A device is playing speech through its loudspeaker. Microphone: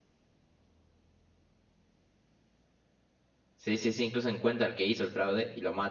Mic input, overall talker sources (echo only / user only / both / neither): user only